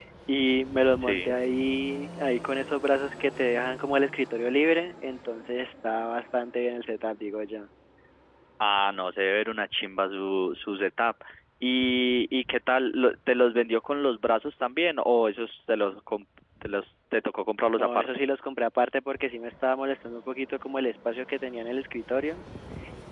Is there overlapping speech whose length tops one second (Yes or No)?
No